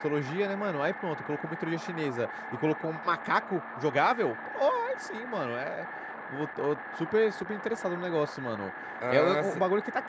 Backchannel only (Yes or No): Yes